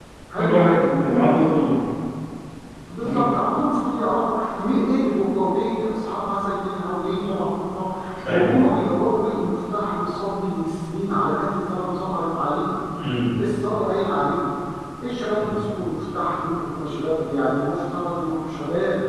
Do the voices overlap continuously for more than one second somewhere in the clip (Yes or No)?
Yes